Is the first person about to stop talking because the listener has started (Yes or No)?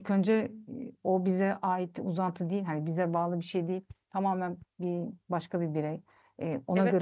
Yes